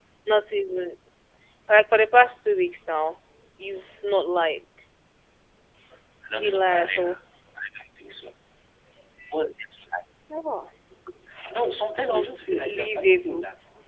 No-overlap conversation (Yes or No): No